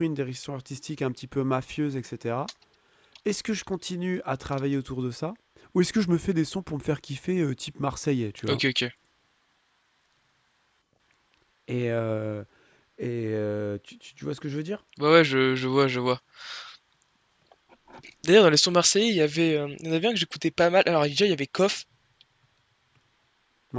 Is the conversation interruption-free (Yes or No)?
Yes